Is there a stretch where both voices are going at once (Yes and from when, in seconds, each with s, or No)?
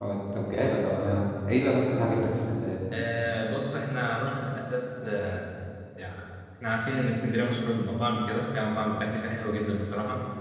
No